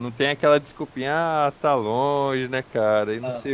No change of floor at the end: Yes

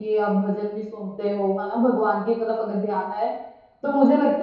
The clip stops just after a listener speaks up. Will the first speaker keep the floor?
Yes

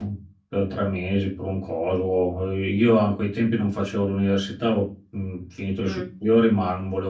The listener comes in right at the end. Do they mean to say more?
No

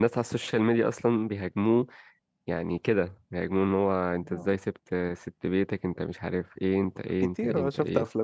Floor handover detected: Yes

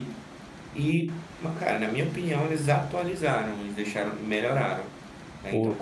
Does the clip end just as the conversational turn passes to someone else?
No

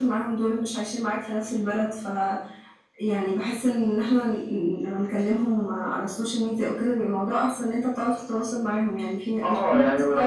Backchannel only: No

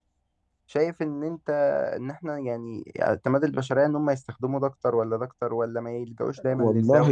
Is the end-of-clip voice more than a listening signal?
Yes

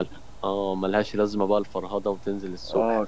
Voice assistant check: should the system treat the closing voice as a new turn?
Yes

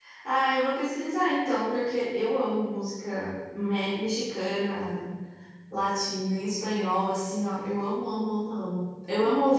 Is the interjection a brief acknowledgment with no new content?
Yes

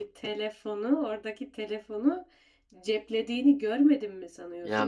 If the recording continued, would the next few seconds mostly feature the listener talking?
Yes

